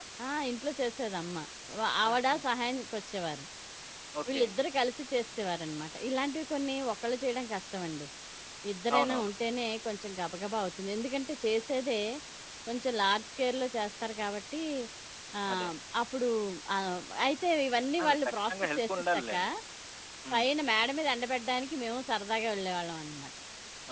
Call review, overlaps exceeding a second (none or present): present